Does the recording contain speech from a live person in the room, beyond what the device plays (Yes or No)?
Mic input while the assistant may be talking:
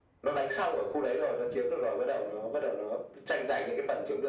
No